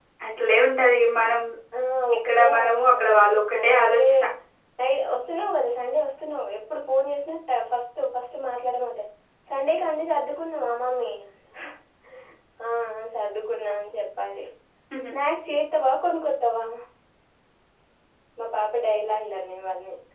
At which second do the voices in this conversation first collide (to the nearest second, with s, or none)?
2 s